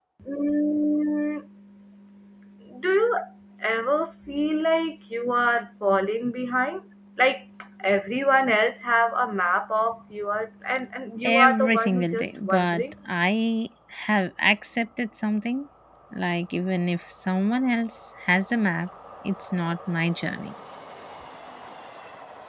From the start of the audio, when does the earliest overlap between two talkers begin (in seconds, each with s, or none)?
11.2 s